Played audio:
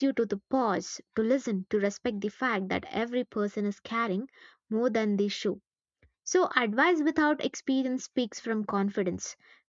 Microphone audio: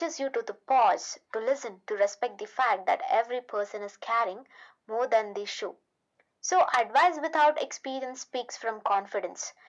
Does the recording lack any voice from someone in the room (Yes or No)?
Yes